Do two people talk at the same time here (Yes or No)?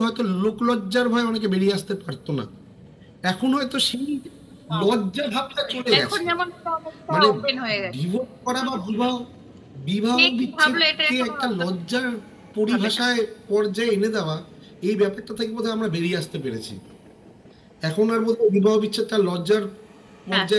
Yes